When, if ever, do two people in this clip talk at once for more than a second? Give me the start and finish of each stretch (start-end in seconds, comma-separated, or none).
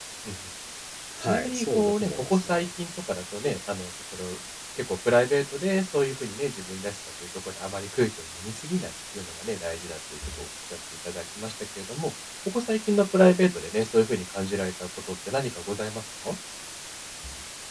1.2-2.7